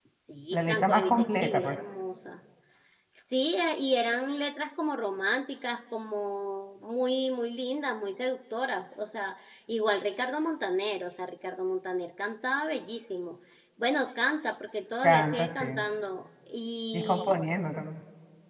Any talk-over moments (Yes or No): Yes